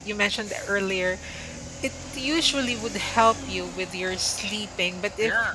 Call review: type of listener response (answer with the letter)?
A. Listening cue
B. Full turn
A